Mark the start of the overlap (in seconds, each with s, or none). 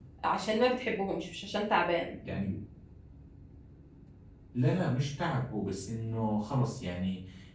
none